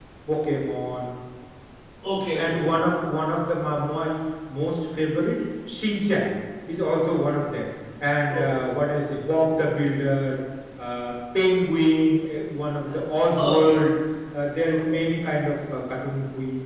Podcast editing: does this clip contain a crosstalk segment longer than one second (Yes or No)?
No